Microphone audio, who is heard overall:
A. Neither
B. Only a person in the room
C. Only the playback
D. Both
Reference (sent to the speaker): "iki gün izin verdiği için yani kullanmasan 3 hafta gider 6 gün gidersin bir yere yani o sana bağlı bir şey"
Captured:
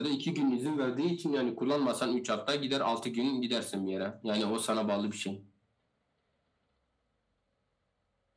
C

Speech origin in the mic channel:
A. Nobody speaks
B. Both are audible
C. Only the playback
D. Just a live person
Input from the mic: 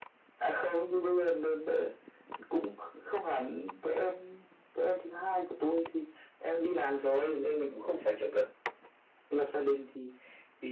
C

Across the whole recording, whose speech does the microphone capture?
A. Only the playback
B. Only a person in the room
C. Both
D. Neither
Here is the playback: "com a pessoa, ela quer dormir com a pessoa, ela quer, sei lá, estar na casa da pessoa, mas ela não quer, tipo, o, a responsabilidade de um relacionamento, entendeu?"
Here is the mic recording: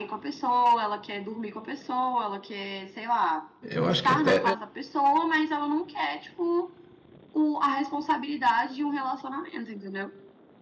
C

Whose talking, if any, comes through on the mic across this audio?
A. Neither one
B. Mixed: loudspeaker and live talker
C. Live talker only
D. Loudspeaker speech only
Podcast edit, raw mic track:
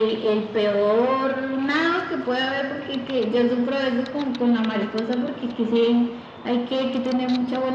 D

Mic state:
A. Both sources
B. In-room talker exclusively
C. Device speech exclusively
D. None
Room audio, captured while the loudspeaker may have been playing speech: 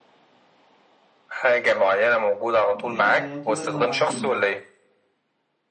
A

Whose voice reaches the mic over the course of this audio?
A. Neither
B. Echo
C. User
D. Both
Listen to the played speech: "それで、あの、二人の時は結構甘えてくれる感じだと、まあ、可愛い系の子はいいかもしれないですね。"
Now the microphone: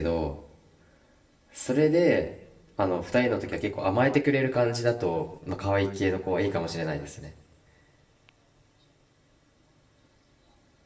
B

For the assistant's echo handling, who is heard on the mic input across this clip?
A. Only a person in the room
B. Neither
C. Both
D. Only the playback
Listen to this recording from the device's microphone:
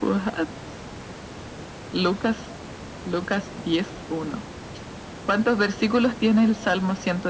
D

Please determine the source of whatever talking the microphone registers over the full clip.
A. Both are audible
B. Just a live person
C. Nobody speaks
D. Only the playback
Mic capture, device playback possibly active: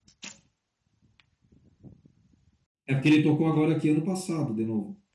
B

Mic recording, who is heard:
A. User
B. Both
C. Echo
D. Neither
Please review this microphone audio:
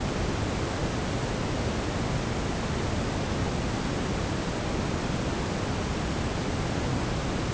D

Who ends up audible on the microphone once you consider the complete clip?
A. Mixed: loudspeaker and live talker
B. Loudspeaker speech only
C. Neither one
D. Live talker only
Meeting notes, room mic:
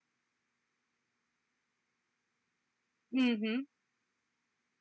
D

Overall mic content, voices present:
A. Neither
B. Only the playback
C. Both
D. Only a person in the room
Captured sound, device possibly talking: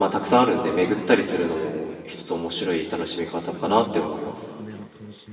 C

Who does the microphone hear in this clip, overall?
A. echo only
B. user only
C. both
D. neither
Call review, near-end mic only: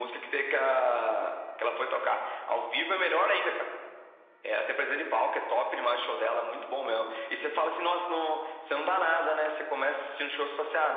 A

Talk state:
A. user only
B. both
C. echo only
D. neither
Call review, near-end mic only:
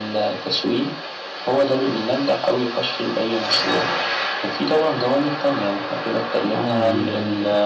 B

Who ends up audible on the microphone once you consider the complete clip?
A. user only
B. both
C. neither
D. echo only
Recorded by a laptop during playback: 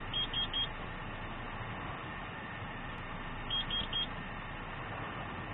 C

